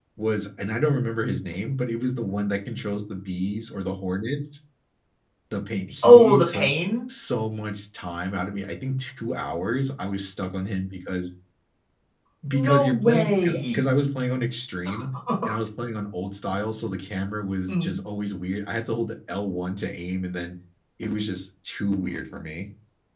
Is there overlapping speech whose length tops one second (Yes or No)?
Yes